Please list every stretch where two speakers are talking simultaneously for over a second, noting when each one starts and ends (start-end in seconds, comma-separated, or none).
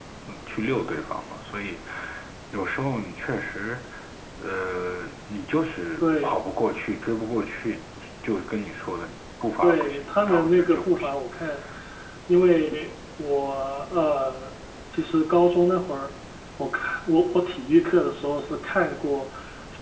9.6-11.1